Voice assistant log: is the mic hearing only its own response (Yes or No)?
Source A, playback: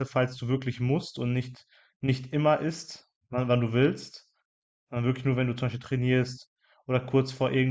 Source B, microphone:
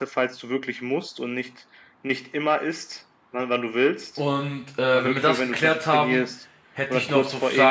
No